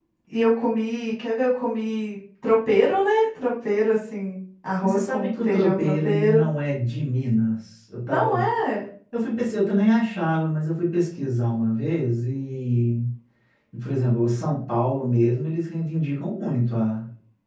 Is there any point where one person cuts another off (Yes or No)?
Yes